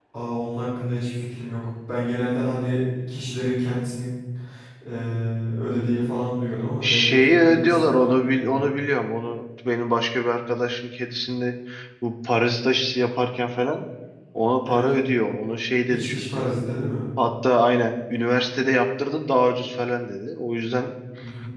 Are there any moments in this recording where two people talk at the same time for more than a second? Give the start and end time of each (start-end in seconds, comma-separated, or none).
6.8-8.6